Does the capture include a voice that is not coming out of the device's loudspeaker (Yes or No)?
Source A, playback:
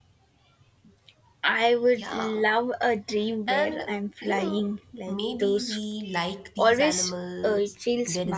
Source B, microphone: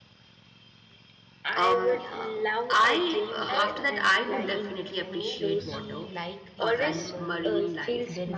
Yes